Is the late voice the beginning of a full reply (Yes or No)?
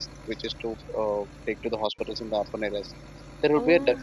No